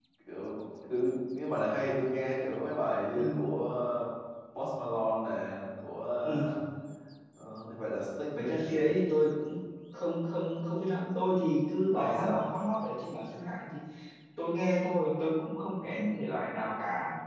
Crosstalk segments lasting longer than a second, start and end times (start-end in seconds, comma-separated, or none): none